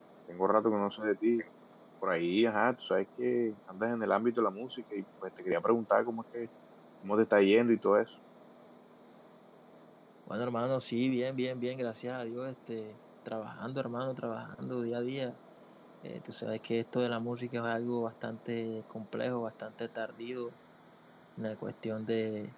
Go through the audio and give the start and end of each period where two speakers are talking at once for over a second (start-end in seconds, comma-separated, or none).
none